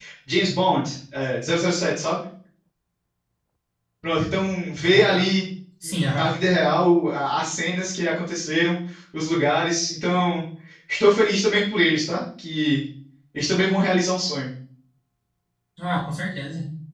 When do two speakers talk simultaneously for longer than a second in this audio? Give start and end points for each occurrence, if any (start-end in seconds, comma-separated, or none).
none